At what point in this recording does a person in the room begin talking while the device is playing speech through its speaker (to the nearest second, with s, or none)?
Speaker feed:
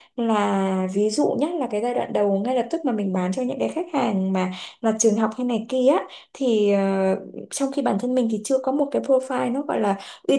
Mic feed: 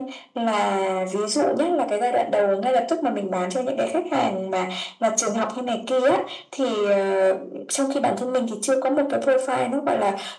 none